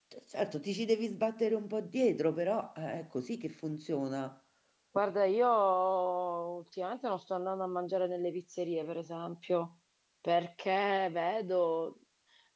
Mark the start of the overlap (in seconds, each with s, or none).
none